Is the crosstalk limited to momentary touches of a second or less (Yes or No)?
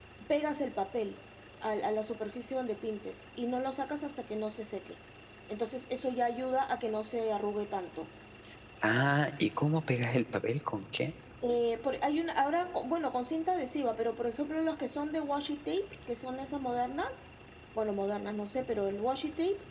Yes